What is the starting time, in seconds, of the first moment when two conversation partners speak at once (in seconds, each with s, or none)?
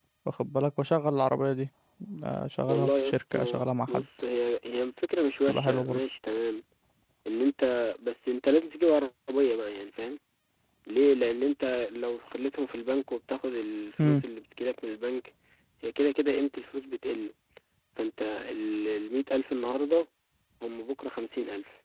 2.7 s